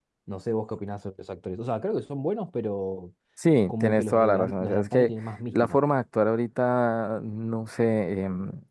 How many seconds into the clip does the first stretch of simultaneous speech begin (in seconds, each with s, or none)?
3.7 s